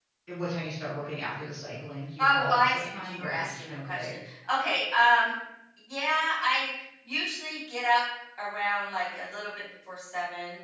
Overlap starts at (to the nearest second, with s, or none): 2 s